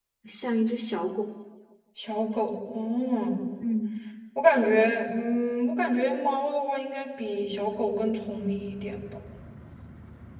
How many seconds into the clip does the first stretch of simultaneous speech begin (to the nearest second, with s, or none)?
none